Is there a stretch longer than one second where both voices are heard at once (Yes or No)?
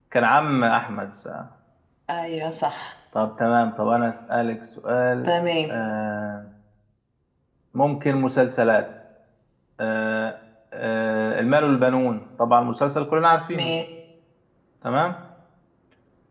No